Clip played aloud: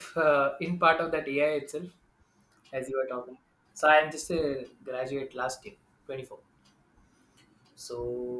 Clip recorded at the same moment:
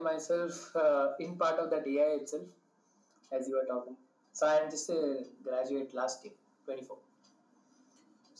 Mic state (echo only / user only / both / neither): echo only